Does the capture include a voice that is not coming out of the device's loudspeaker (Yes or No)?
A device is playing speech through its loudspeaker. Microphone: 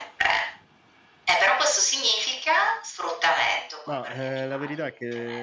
Yes